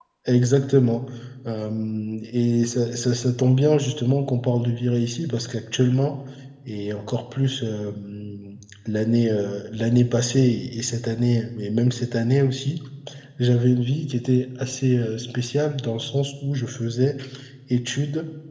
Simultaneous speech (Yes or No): No